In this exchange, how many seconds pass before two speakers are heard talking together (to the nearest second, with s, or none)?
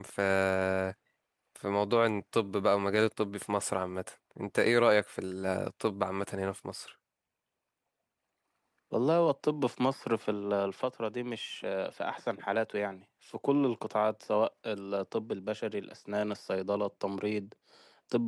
none